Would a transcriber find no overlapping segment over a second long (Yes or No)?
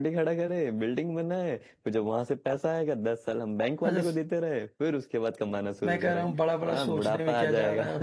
No